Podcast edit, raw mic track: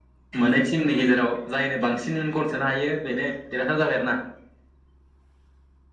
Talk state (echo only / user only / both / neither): echo only